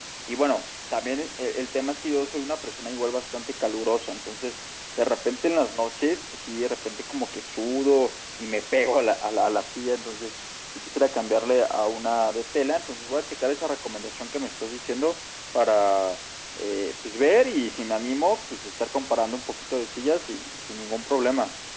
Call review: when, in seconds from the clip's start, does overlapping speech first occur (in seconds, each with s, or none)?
none